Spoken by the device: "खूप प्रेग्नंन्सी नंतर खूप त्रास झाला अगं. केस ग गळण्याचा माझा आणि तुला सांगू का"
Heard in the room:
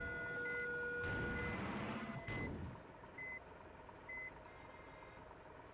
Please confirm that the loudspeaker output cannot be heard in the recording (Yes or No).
Yes